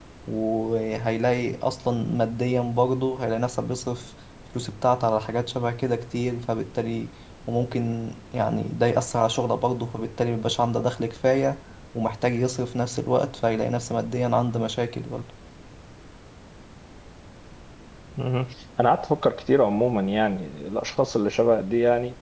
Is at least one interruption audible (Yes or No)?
No